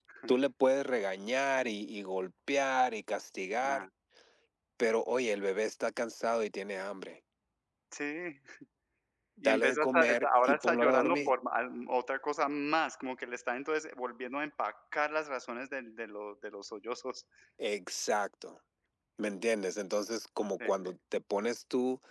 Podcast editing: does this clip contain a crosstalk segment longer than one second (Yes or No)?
Yes